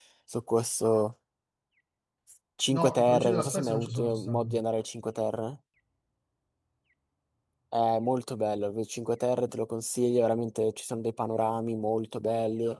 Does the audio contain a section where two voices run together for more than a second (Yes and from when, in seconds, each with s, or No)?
Yes, from 2.7 s